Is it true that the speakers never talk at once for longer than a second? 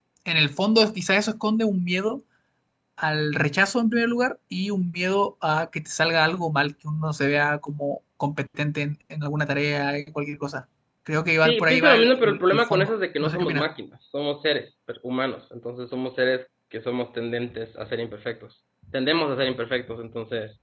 No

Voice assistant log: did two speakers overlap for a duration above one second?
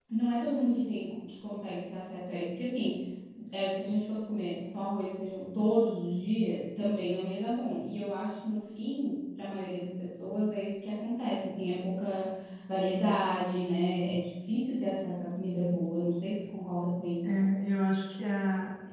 No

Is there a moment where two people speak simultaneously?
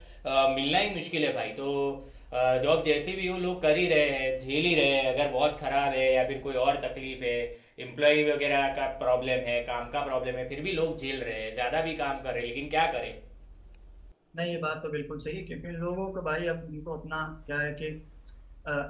No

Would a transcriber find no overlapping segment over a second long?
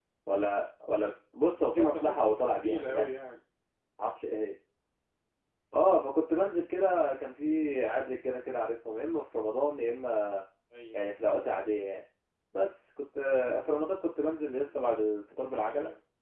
No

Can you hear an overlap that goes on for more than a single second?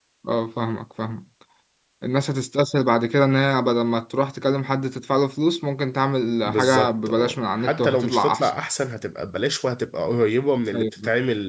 Yes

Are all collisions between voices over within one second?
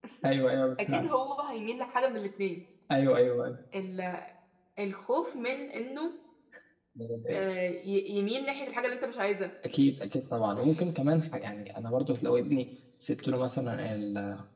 Yes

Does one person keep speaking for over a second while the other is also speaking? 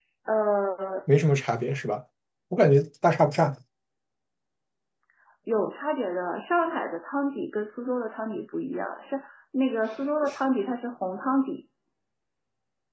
No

